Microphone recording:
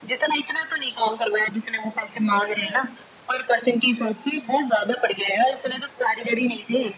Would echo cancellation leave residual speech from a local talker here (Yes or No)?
Yes